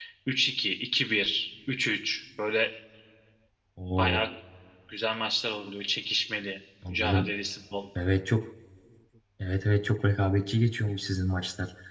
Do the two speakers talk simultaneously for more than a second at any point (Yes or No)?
No